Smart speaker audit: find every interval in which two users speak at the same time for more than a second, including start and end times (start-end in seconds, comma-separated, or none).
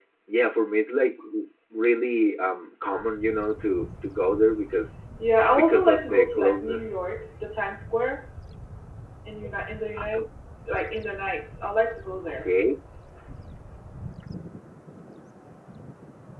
5.5-6.8